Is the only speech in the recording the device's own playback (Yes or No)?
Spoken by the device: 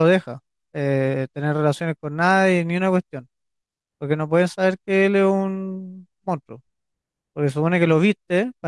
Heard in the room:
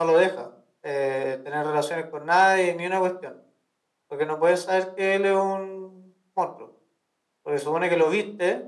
Yes